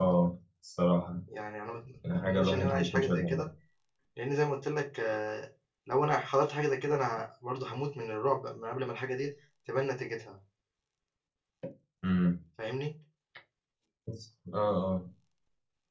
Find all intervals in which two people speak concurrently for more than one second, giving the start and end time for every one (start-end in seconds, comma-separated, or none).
2.1-3.5